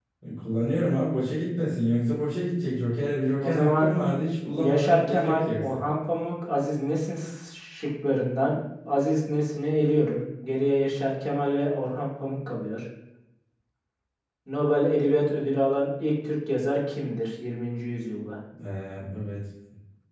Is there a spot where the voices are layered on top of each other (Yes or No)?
Yes